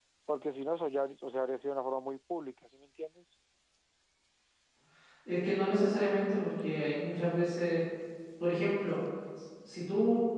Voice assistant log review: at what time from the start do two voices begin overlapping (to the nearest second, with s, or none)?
none